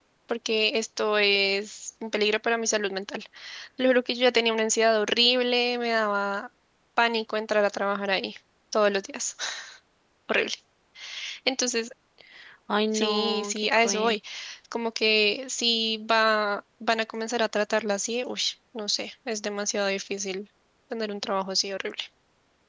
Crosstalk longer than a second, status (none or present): present